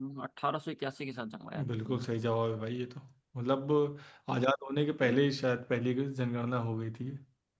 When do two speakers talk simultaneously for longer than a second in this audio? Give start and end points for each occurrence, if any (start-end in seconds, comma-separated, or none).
none